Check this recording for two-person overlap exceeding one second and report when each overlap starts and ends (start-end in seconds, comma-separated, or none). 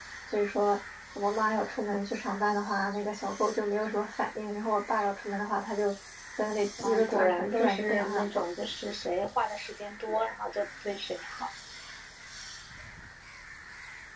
6.8-8.4